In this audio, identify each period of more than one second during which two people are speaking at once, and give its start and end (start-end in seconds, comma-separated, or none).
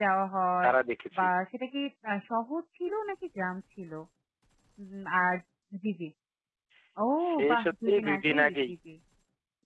7.5-8.7